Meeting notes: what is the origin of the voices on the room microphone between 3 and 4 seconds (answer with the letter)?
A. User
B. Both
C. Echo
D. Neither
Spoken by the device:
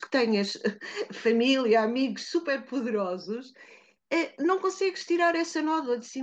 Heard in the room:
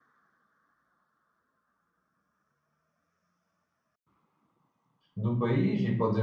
D